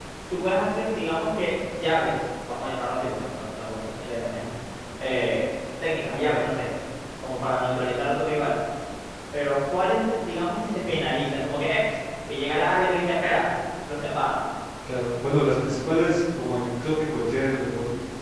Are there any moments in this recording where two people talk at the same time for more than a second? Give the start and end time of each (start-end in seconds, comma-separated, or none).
none